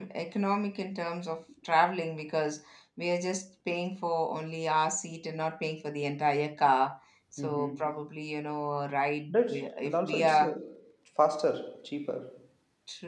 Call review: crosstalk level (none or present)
present